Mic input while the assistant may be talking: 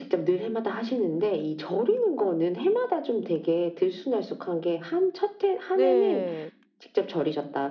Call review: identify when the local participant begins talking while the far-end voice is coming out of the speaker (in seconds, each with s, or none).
5.7 s